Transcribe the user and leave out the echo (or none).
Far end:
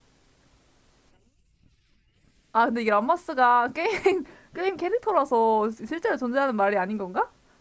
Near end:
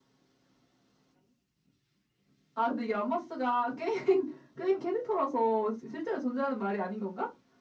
none